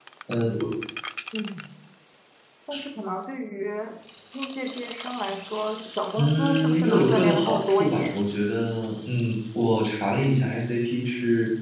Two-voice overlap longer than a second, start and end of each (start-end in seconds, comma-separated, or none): 6.2-8.2